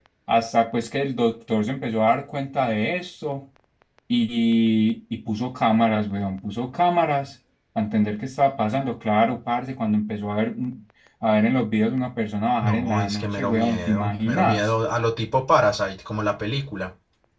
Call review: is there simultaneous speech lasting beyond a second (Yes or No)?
Yes